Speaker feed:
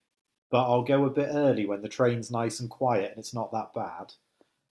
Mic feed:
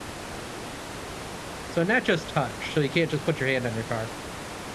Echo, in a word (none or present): none